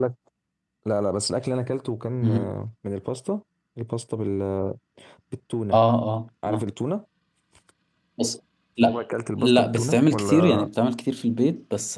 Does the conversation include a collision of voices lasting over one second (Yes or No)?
Yes